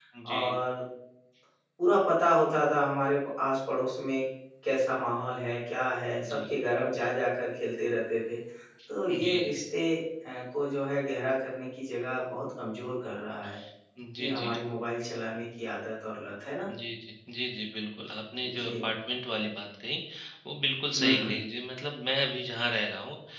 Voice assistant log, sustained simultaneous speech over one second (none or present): none